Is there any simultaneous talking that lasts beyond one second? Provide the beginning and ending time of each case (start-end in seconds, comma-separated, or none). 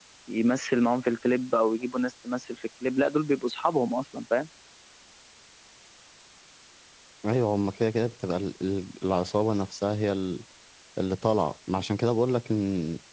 none